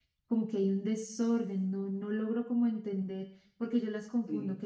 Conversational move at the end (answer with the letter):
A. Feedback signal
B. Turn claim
A